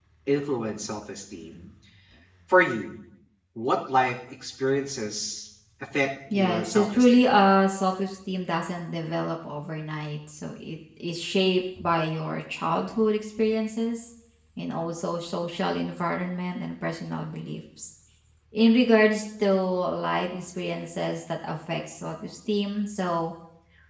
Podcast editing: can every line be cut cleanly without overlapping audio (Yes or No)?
No